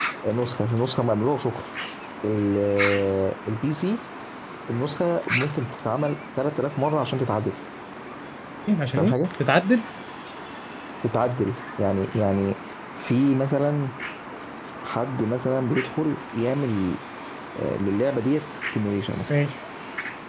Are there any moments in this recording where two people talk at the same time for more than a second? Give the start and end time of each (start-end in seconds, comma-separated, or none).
none